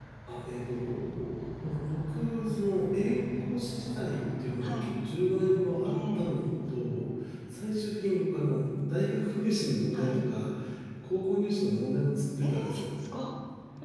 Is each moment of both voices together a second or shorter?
Yes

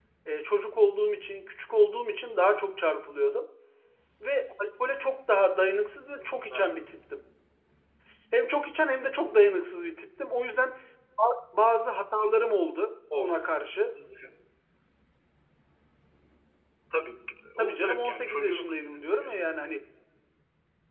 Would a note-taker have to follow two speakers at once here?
Yes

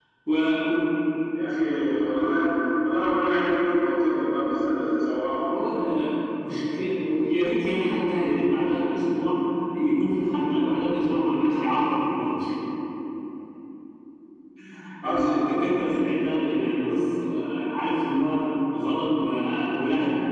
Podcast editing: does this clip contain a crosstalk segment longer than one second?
No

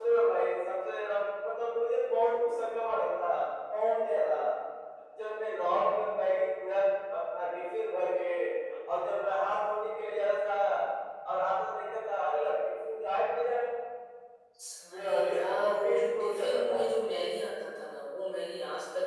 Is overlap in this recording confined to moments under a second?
No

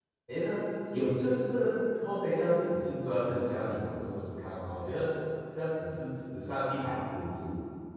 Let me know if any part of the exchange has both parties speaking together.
No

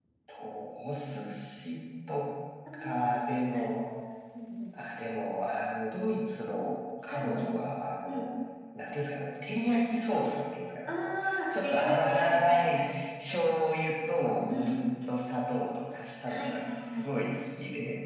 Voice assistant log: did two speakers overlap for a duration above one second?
Yes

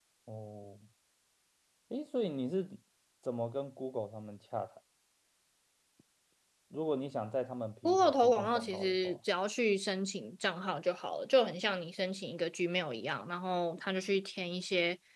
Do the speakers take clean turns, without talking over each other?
No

